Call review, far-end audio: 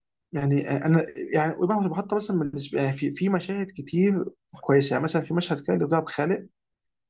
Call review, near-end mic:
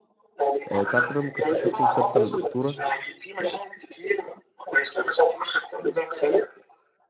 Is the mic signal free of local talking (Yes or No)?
No